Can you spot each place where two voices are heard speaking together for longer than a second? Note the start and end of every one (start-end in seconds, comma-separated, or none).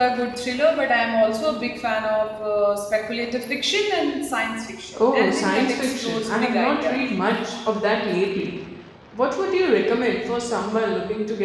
5.0-7.0